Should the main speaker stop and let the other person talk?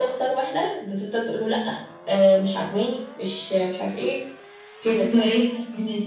Yes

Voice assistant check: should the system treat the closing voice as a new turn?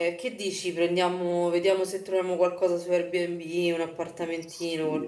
Yes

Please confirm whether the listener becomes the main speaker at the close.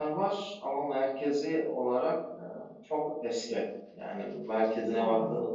No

